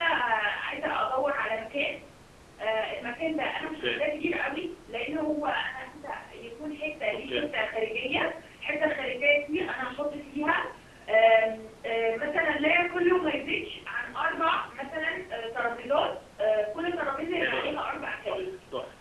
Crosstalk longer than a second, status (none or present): none